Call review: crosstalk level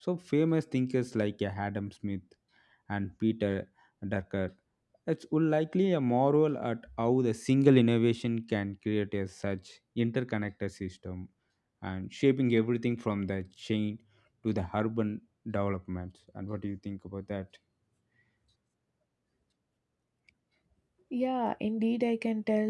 none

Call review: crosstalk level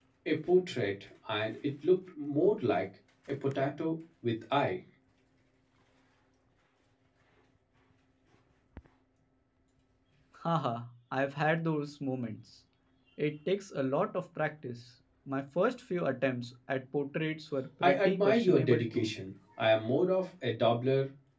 present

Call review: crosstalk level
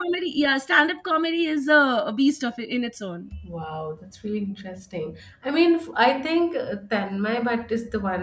none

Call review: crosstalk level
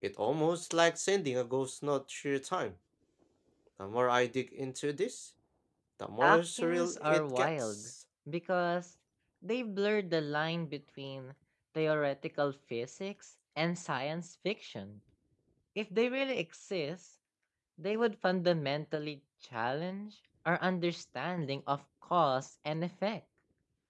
present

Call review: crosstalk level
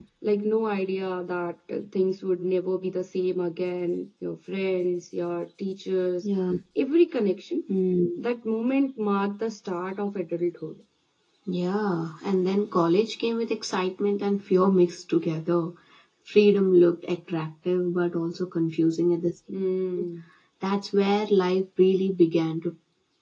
none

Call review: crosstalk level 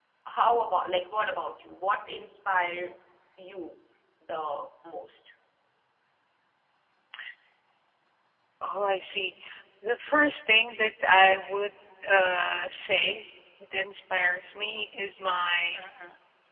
none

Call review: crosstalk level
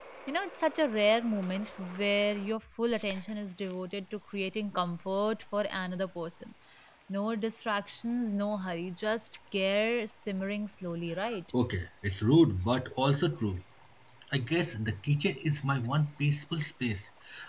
none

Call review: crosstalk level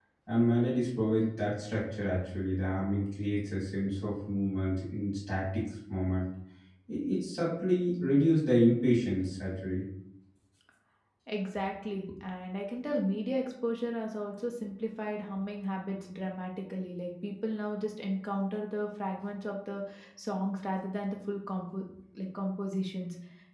none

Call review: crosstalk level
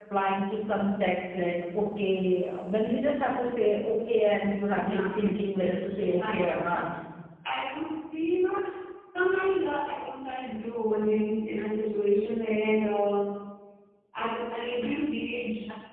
present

